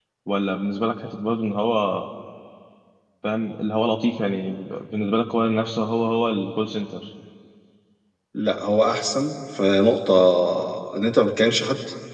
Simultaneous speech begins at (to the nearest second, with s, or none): none